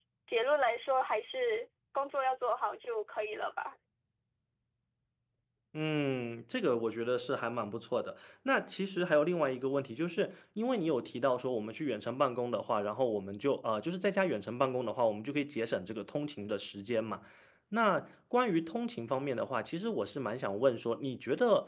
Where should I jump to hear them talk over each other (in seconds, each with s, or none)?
none